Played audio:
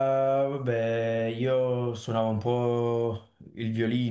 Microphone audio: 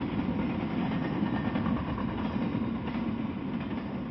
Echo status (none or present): none